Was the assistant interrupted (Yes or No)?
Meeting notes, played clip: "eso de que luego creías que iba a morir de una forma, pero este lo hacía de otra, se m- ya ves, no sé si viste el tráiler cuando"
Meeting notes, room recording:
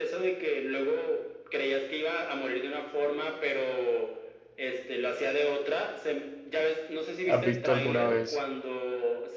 Yes